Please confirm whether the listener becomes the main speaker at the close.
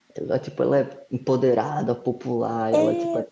No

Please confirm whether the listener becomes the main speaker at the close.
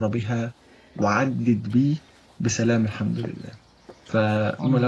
No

